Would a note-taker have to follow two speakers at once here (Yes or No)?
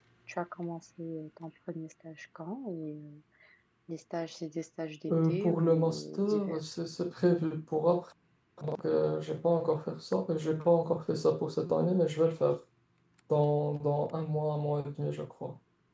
Yes